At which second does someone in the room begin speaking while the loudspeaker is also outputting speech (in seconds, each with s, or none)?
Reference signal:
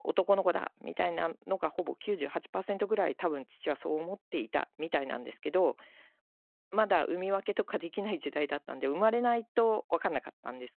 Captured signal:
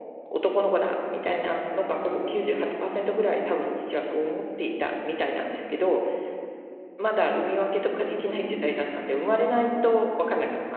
none